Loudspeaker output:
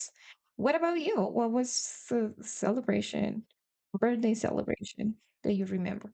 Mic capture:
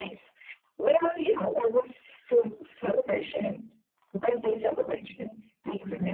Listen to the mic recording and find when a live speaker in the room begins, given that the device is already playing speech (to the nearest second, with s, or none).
none